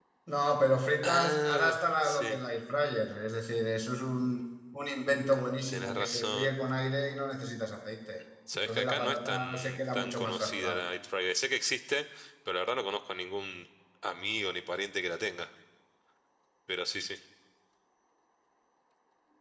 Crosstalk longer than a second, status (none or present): present